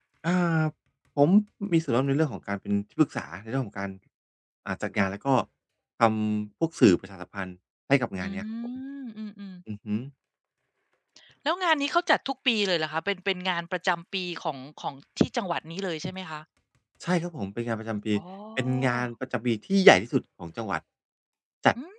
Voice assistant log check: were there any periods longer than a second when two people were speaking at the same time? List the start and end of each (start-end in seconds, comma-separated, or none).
none